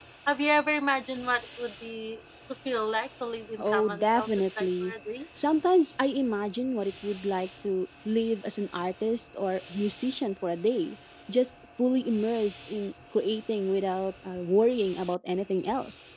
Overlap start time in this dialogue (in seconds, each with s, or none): 3.6 s